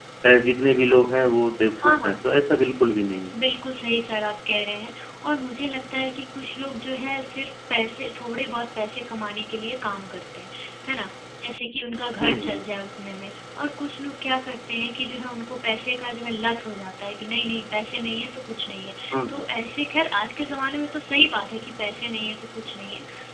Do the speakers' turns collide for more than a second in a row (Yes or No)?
No